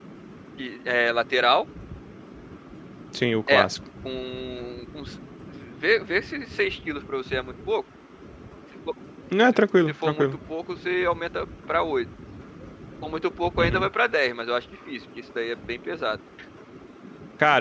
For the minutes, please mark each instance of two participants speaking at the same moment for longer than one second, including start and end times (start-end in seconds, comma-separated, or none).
none